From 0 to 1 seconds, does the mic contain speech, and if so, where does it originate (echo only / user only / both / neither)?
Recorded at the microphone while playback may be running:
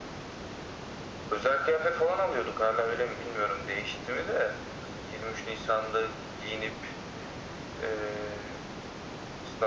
neither